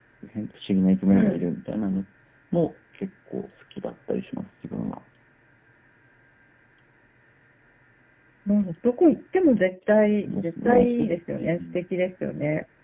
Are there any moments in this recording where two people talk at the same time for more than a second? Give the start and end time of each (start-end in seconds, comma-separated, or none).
10.2-11.5